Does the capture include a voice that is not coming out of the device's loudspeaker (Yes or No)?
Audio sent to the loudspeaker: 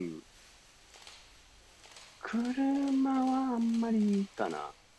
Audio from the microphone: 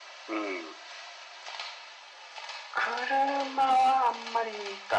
No